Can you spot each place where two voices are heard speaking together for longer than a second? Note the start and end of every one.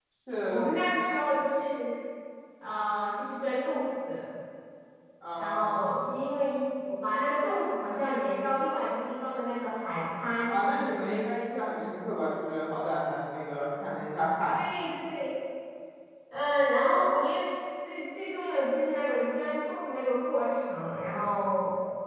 none

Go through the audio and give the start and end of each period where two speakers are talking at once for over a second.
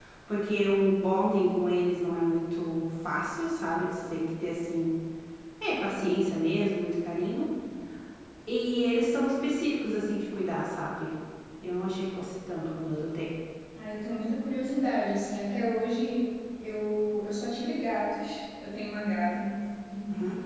none

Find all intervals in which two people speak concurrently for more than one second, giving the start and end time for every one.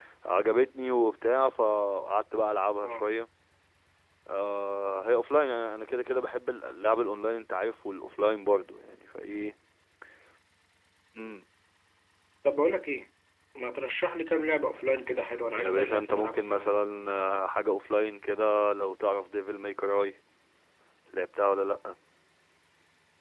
15.6-16.8

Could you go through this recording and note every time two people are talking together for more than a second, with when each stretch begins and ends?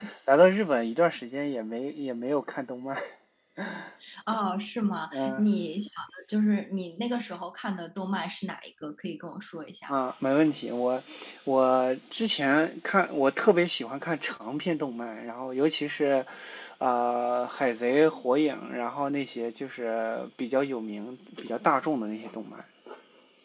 none

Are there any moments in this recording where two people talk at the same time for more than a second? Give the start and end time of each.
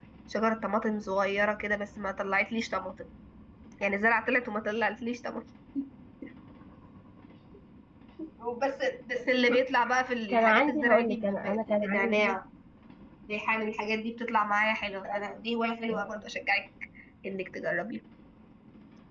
10.3-12.4

